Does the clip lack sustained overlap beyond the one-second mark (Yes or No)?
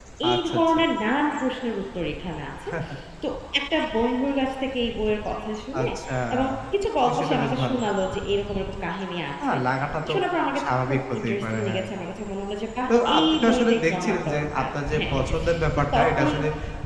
No